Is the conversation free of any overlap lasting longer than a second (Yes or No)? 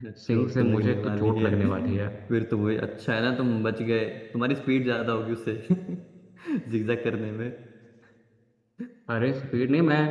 No